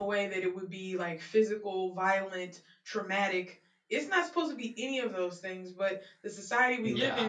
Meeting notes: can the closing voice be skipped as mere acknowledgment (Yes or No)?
Yes